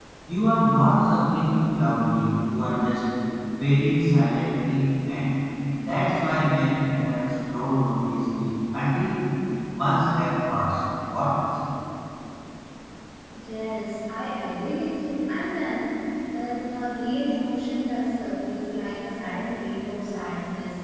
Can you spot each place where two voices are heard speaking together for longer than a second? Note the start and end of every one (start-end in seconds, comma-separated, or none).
none